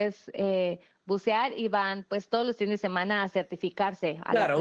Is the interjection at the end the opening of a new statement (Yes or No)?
Yes